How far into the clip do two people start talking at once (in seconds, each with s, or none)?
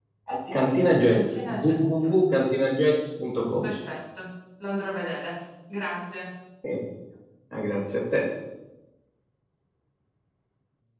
0.5 s